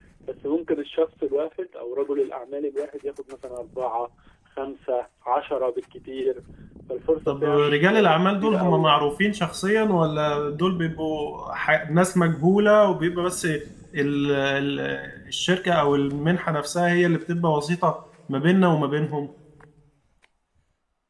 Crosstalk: present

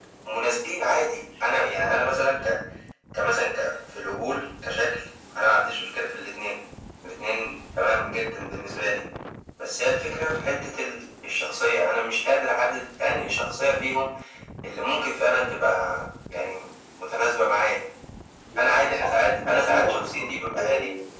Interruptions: present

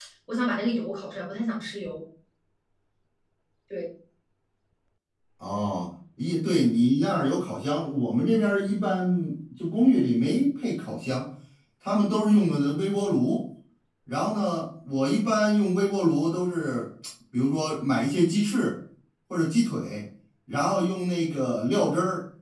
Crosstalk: none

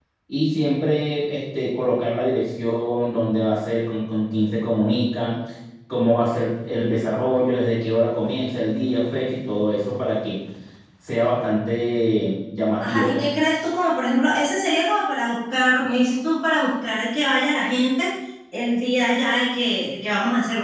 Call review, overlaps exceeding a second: none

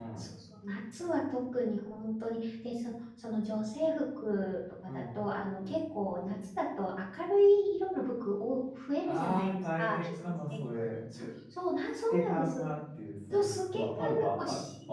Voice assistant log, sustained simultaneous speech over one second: present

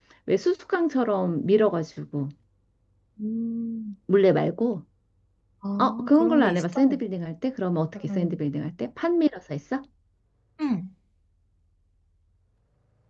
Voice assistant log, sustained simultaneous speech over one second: present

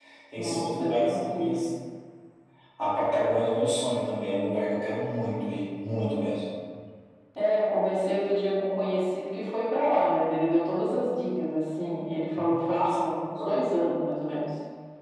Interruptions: present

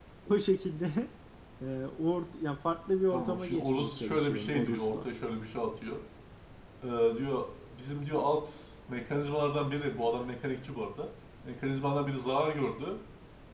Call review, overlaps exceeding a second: present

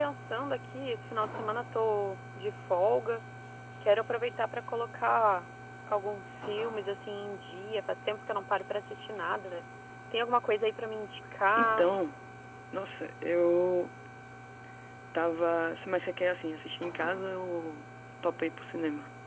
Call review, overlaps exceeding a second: none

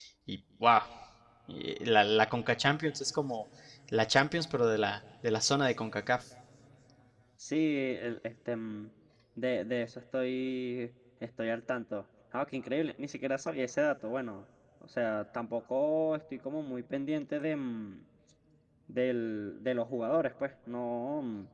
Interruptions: none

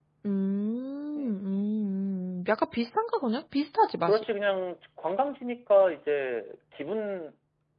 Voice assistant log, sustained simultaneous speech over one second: none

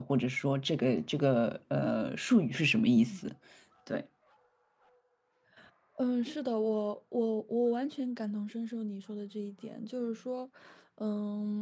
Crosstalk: none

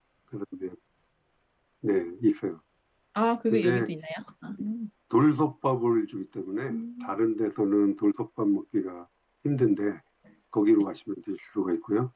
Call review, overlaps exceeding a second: none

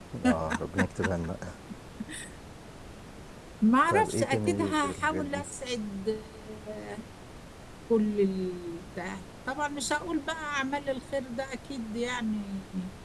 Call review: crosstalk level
present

